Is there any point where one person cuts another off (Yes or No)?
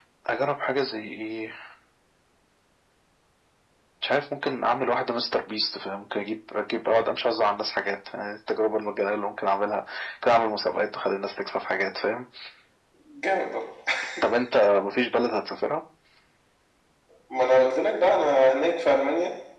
No